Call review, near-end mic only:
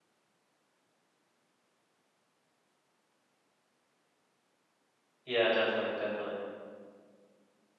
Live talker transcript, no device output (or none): Yeah. Definitely. Definitely.